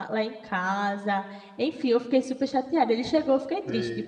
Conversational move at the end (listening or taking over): listening